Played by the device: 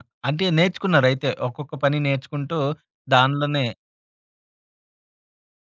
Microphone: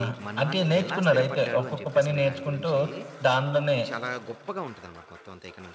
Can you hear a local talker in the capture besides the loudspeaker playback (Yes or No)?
Yes